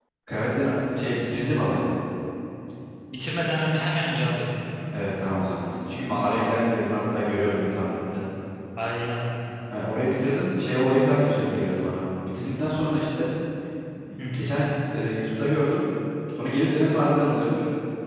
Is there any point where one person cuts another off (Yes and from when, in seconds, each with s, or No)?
No